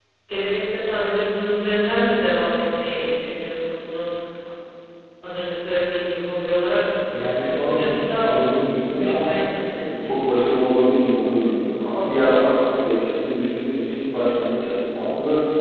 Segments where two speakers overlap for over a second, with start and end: 7.1-8.3

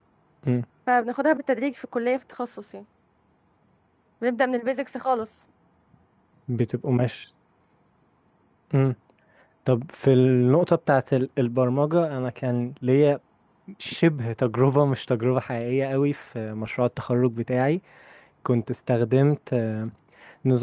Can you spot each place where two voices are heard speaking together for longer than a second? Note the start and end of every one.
none

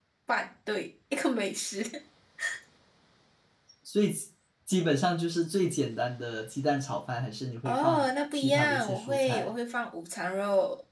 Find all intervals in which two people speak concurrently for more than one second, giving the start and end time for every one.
7.6-9.5

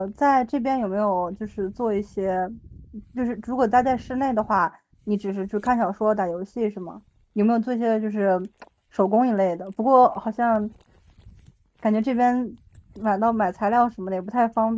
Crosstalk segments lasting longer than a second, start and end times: none

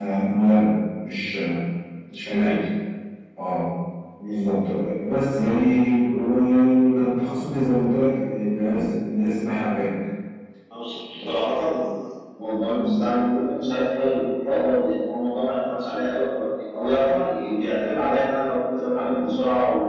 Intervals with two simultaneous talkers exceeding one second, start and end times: none

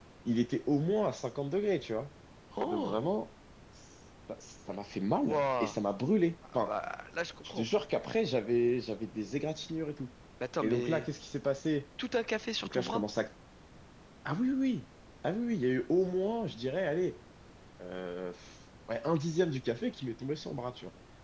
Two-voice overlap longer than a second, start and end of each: none

